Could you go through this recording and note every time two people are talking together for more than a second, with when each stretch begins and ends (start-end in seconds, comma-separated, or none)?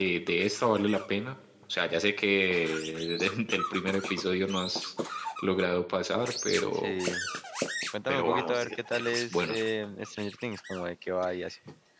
8.1-9.6